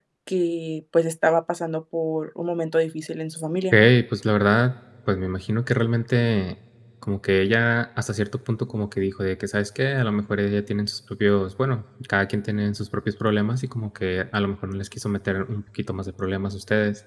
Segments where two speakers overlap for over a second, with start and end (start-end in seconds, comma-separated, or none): none